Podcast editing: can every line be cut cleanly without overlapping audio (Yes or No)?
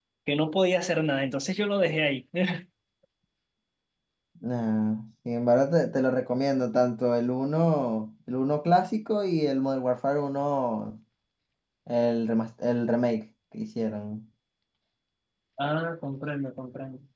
Yes